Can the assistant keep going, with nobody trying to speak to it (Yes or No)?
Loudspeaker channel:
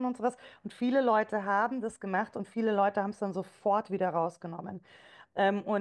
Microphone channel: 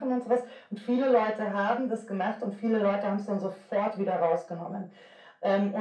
Yes